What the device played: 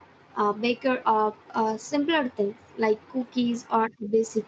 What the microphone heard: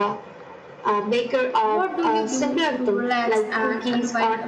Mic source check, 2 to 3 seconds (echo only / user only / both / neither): both